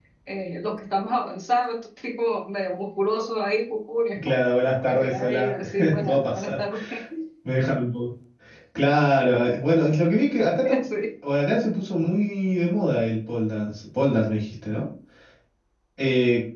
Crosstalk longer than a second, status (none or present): present